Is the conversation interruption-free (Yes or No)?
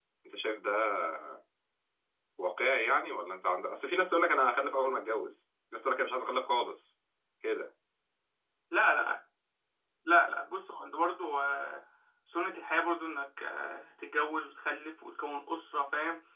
Yes